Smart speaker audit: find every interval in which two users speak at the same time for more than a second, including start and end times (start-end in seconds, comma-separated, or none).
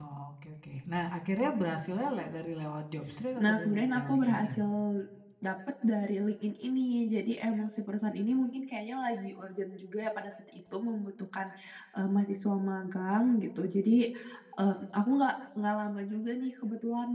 3.4-4.6